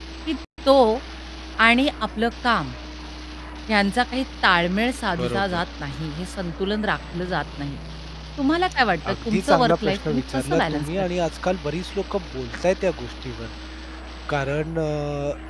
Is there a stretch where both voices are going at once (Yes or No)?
Yes